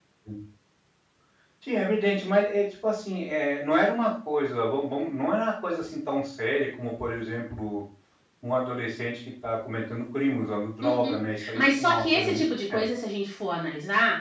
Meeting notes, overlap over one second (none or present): present